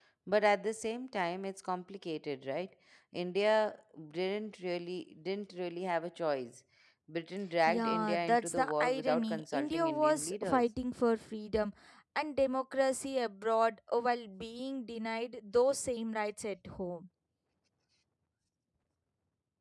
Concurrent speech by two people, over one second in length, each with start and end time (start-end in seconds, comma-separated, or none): 7.7-10.6